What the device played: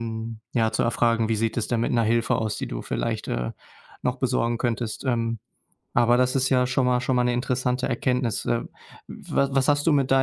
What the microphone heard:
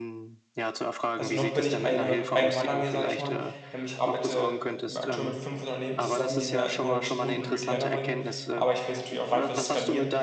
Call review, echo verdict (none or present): present